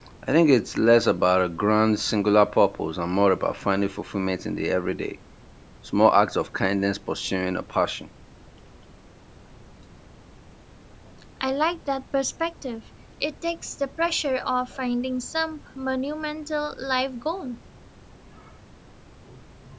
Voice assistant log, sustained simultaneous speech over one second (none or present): none